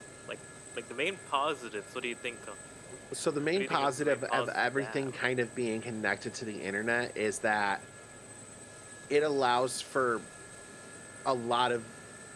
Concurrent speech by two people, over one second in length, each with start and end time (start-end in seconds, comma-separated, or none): 3.5-5.1